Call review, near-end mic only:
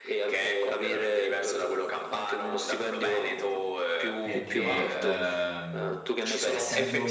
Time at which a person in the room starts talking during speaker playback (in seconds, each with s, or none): 4.2 s